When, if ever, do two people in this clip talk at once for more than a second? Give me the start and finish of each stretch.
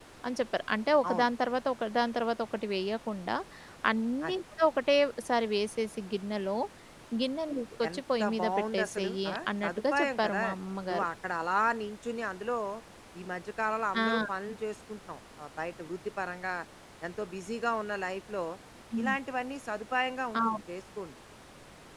7.9-10.4

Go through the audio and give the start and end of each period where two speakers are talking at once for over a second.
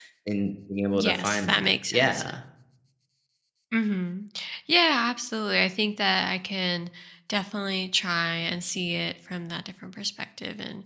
0.9-2.2

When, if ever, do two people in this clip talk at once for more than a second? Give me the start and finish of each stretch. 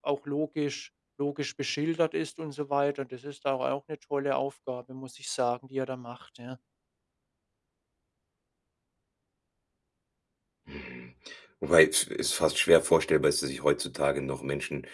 none

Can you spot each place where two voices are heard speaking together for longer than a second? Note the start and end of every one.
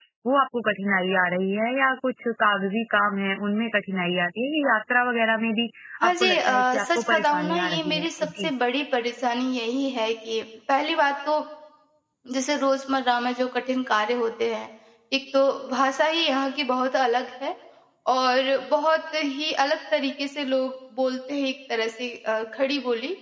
6.1-8.5

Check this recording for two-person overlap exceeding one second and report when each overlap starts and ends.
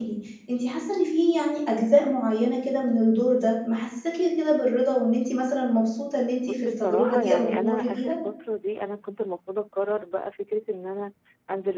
6.4-8.1

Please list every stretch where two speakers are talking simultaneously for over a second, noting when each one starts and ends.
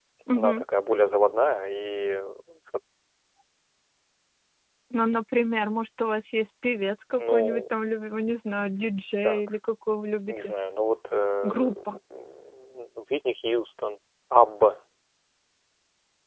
none

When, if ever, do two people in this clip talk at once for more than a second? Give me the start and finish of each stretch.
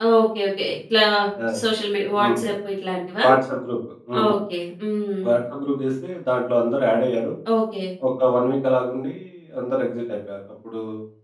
none

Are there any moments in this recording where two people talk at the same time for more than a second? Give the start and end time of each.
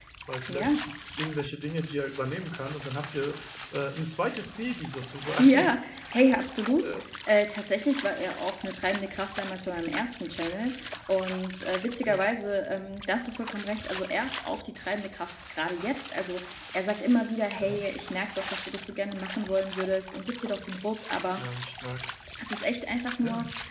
none

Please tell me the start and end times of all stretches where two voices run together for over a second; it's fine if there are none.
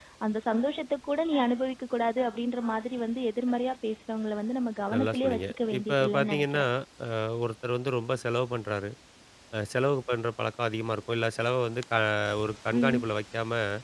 4.9-6.6

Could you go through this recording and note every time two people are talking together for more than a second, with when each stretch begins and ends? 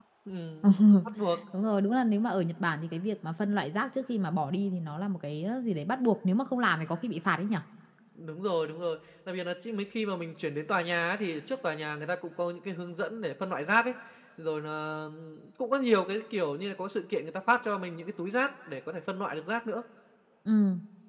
none

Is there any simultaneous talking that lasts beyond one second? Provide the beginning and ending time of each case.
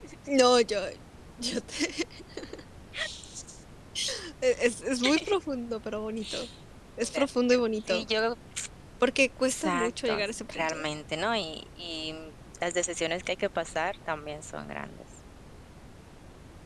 9.5-10.8

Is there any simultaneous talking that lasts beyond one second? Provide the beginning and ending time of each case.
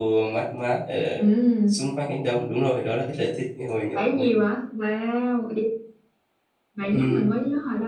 none

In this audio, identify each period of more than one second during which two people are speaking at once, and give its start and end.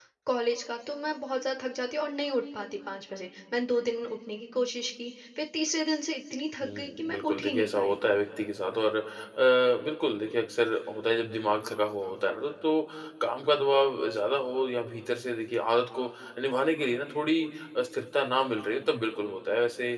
6.6-8.0

